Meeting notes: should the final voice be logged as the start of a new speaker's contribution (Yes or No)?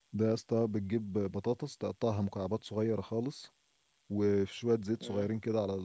No